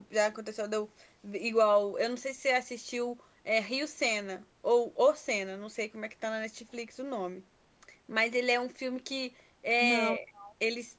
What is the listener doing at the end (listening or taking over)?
listening